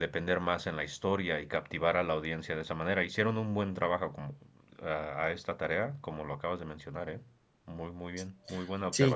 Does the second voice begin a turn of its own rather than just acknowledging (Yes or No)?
Yes